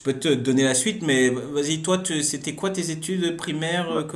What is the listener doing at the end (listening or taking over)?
taking over